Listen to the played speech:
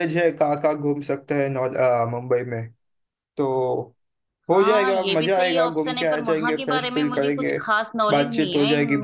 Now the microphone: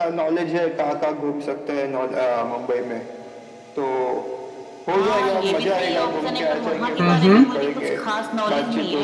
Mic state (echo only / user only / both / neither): both